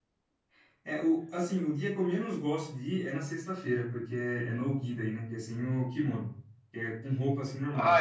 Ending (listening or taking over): taking over